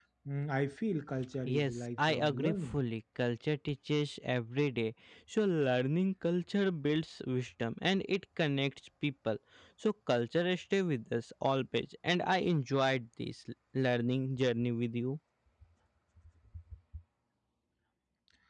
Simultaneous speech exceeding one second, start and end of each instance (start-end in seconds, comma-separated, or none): 1.4-2.8